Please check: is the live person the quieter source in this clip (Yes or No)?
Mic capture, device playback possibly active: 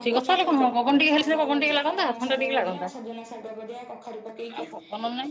No